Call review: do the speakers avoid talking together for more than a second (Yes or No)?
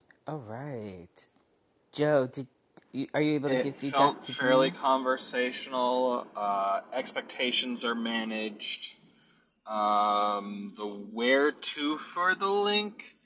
No